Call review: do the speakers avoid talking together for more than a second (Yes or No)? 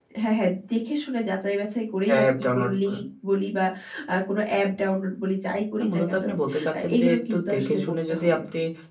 No